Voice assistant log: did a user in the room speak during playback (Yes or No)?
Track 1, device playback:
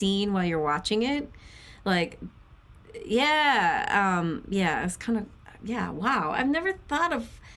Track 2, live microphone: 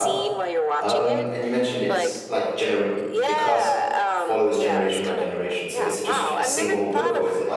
Yes